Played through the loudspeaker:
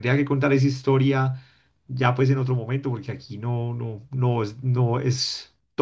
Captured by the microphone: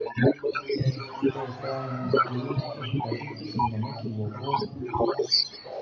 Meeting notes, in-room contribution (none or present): present